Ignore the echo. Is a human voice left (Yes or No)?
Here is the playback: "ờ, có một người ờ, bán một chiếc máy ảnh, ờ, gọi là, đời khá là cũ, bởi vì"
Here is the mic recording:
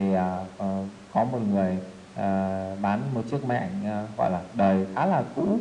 No